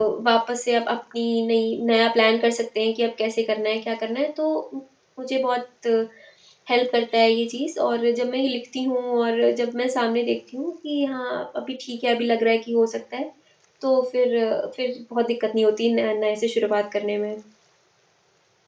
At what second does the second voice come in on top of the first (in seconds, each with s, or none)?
none